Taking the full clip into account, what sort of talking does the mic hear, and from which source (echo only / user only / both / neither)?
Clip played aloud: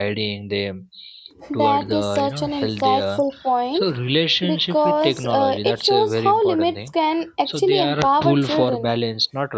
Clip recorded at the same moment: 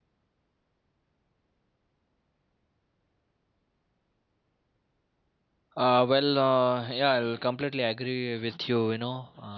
user only